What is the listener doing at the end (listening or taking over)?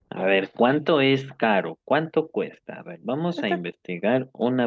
listening